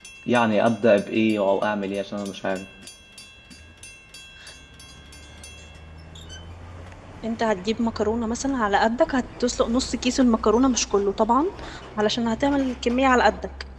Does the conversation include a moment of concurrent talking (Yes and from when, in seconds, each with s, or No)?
No